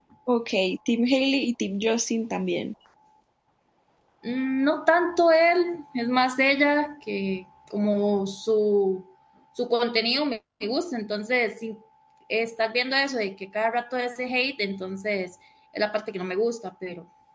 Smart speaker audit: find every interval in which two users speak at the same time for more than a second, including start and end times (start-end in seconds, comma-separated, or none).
none